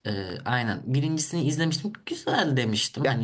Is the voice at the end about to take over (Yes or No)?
No